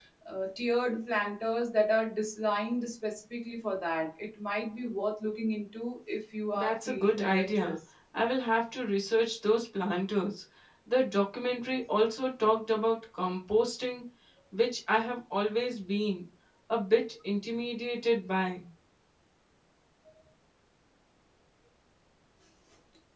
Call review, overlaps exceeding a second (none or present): present